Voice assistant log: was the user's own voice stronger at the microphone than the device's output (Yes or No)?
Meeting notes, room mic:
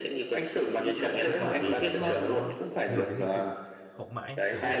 No